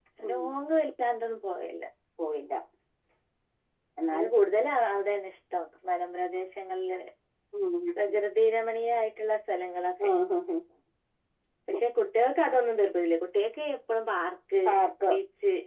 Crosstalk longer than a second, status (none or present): none